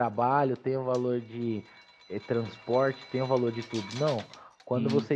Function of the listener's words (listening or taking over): listening